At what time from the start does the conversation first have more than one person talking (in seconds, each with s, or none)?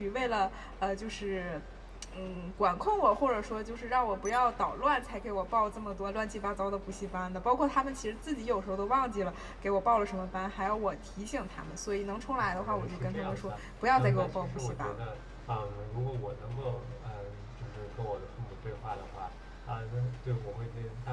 12.4 s